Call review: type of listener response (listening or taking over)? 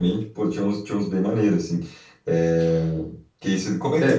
listening